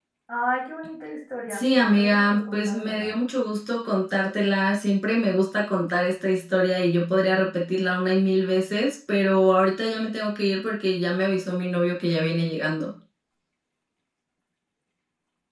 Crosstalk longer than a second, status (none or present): present